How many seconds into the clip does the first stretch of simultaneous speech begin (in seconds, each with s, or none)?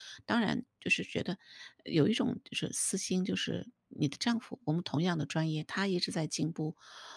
none